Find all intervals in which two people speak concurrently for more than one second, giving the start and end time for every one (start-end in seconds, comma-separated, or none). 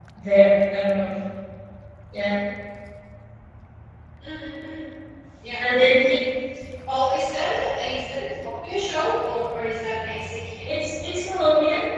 none